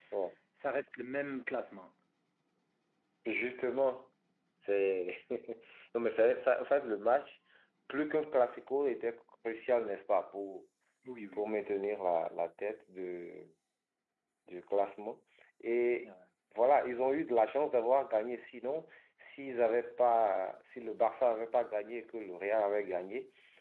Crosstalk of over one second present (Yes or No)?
No